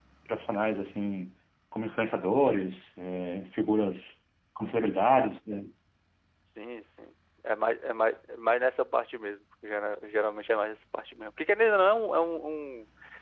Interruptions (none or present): none